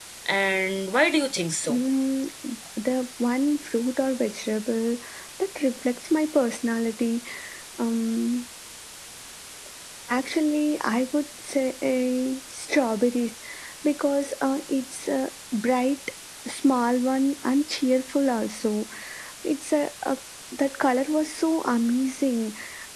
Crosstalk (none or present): none